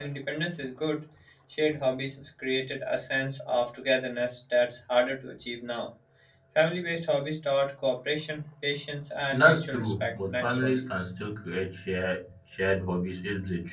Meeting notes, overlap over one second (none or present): present